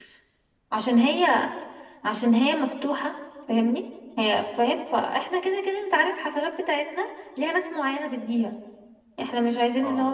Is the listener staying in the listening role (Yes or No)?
Yes